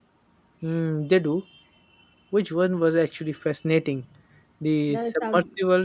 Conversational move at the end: listening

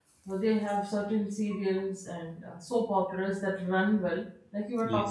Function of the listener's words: listening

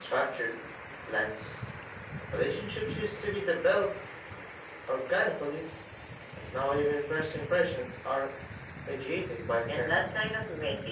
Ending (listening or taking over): taking over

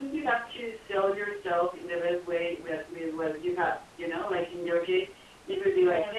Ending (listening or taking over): listening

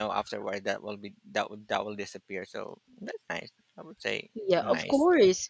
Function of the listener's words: taking over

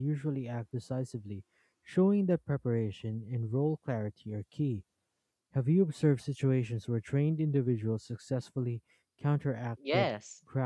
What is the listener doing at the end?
taking over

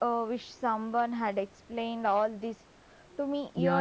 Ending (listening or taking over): taking over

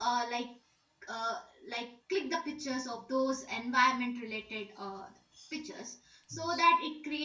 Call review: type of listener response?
listening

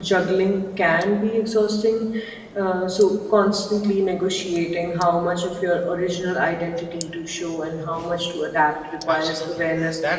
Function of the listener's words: taking over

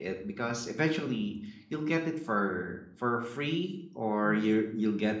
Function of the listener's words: listening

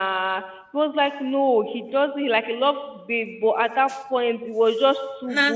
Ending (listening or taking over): listening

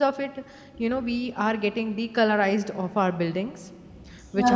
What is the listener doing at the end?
listening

